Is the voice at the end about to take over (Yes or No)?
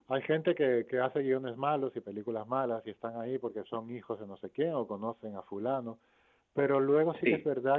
No